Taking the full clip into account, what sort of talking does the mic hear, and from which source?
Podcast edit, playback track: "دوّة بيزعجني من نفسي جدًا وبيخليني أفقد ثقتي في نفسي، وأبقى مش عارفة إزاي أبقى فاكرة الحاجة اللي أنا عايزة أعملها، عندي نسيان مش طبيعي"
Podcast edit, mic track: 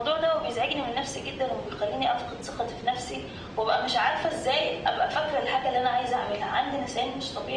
echo only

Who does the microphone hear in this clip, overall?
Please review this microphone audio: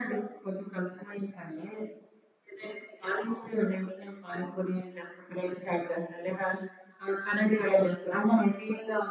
echo only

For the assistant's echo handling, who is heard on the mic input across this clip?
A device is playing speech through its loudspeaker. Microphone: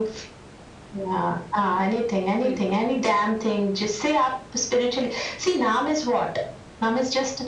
both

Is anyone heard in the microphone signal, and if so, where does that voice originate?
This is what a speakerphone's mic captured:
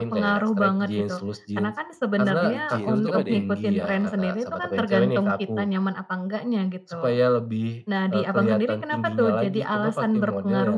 both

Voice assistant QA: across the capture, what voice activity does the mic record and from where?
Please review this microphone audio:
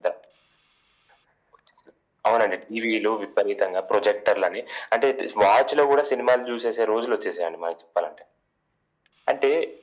echo only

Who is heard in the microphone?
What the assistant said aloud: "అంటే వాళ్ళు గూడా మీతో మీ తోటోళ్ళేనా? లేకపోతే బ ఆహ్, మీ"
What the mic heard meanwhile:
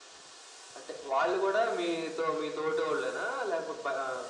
echo only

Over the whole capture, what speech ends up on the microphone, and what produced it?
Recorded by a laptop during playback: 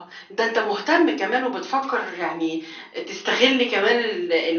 echo only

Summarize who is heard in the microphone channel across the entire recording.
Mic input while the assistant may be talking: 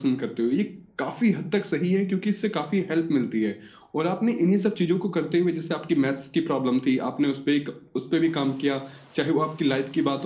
echo only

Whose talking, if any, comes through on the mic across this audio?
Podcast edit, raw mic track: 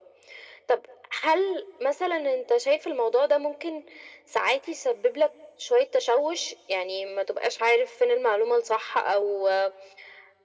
echo only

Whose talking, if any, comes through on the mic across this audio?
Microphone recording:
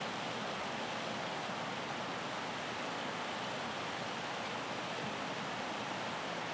neither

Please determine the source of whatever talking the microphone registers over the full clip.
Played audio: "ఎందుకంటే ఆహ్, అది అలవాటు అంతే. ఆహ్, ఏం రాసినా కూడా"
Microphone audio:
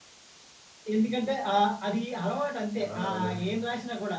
both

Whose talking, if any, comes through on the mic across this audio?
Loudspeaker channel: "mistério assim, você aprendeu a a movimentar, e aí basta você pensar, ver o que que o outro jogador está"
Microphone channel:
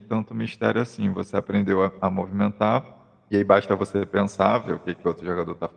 echo only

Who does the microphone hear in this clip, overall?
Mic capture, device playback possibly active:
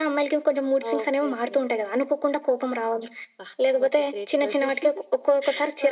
echo only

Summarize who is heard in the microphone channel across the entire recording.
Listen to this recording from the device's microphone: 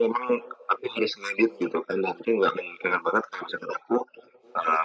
echo only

